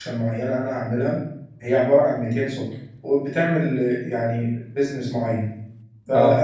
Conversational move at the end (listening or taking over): listening